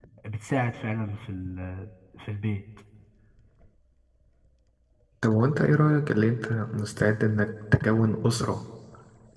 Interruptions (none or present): none